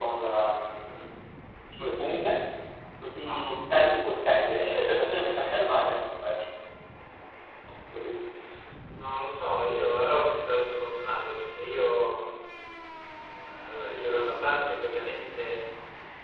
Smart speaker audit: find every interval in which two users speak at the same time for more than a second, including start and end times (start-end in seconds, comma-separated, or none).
none